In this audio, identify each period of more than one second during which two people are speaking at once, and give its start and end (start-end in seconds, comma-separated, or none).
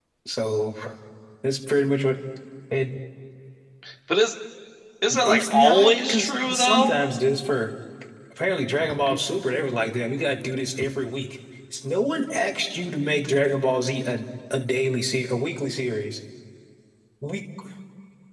5.1-7.0